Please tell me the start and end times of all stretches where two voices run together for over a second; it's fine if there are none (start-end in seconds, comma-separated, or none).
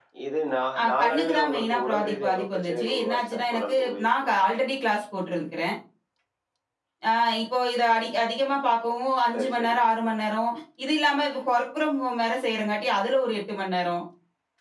0.8-4.5